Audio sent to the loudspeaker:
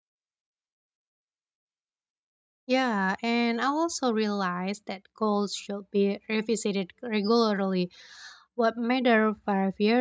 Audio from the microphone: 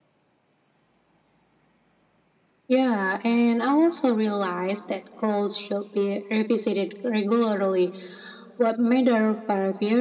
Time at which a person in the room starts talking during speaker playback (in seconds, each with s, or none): none